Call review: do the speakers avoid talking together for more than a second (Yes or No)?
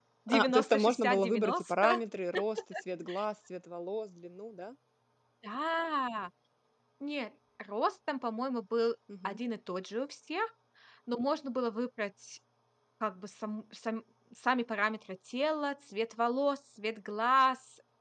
No